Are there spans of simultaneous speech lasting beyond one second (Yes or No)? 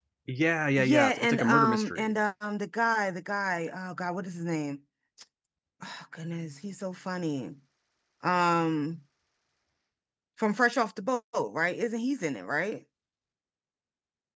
Yes